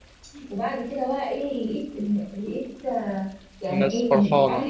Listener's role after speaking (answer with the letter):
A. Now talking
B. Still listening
B